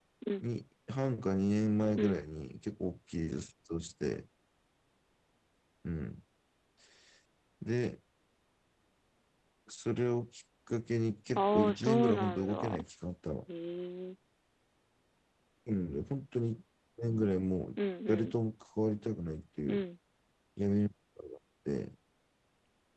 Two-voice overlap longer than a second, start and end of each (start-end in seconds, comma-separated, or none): 11.4-12.8